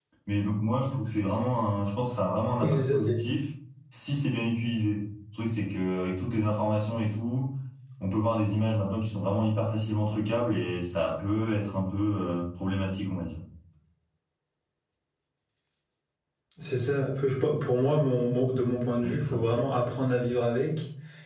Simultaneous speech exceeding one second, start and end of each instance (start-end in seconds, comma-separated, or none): none